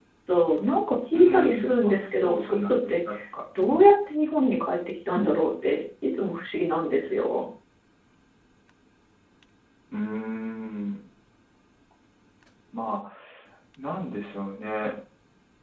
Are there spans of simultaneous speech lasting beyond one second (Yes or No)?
Yes